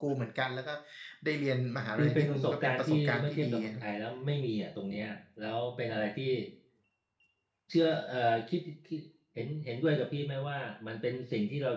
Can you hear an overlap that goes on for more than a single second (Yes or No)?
Yes